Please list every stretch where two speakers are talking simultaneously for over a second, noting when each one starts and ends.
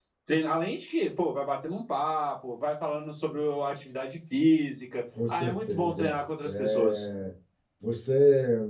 5.3-7.1

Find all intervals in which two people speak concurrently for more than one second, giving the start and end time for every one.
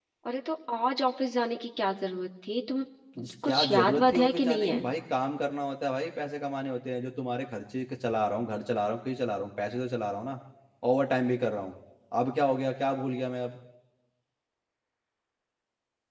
3.2-4.8

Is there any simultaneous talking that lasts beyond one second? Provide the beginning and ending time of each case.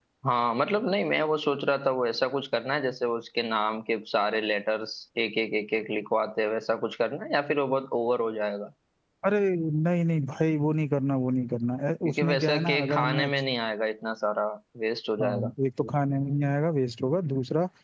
12.1-13.3

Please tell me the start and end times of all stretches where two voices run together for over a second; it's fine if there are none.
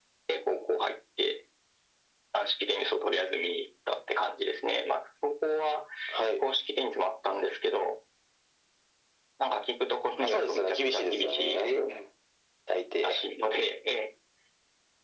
10.2-11.6

